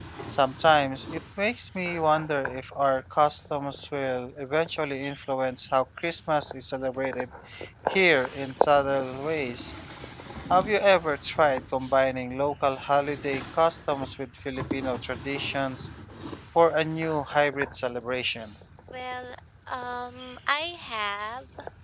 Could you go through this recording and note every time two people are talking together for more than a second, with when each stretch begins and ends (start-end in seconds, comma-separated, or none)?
none